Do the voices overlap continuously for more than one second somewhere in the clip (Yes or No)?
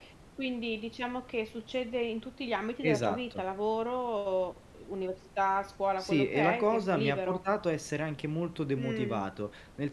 Yes